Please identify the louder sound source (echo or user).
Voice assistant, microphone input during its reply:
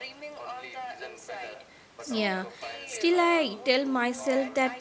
user